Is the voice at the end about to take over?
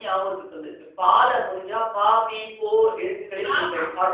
Yes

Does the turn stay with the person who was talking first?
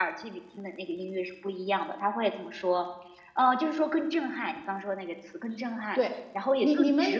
No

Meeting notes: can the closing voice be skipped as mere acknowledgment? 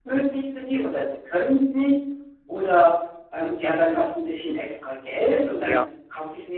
Yes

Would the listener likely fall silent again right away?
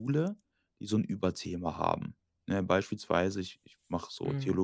Yes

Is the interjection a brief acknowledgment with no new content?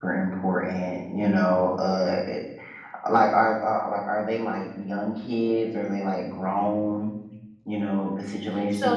No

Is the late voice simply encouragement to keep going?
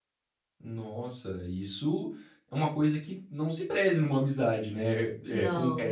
Yes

